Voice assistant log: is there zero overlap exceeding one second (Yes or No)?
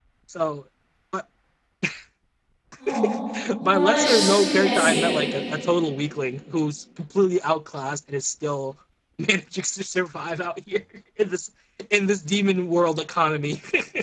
No